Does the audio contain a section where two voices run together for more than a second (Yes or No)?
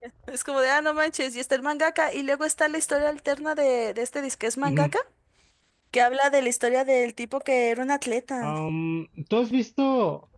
No